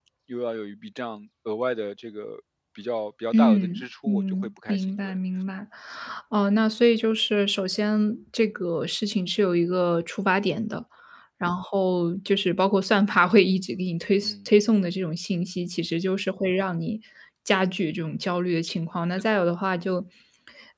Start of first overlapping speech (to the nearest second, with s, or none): 3 s